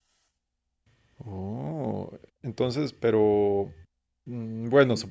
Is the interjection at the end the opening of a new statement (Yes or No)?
No